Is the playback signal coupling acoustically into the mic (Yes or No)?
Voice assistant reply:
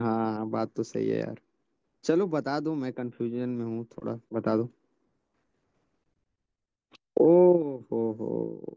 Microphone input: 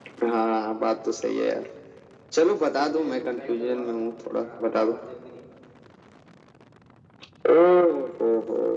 Yes